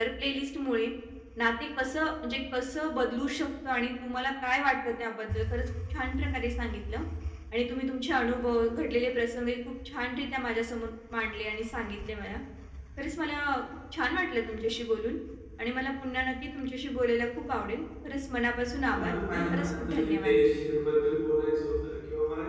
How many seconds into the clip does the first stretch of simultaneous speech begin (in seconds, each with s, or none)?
18.8 s